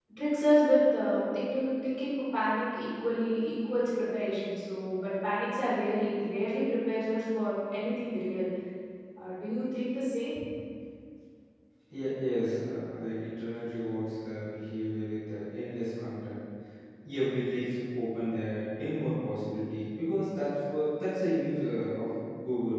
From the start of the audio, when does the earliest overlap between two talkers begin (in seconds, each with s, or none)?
none